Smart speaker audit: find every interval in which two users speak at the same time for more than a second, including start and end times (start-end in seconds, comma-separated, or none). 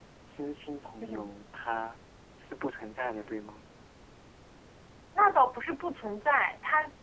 none